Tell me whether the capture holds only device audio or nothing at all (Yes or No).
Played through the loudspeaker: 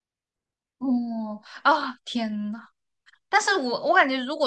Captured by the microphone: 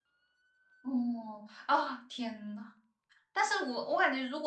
Yes